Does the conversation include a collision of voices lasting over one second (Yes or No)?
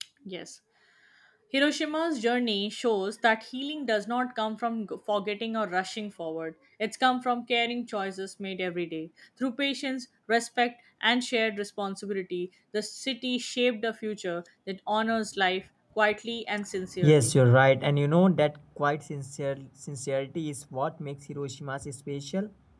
No